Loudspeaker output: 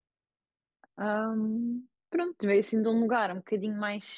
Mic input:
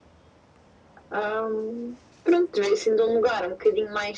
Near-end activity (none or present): none